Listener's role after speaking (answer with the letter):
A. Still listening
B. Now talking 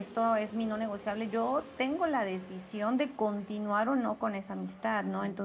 A